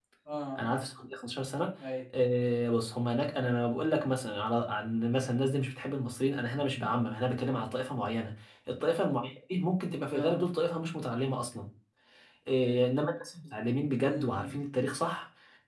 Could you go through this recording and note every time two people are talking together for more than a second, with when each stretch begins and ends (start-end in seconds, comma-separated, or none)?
none